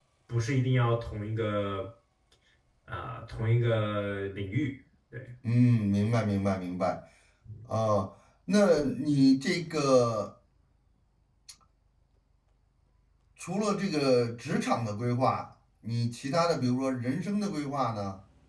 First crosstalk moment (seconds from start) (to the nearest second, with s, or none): none